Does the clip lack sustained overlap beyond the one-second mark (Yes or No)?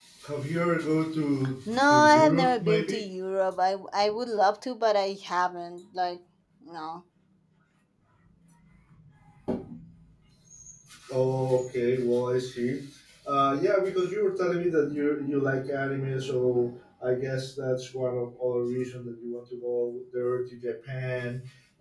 No